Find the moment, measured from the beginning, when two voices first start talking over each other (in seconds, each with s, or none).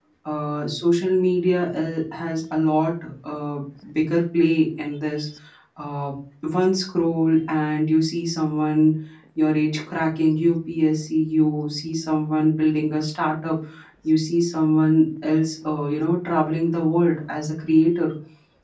none